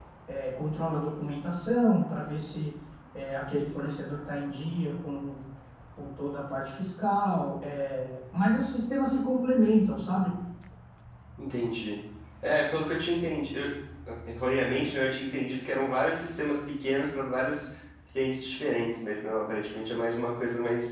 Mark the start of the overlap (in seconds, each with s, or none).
none